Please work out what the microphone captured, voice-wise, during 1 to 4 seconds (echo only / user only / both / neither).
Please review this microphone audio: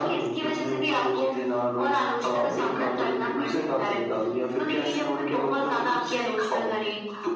echo only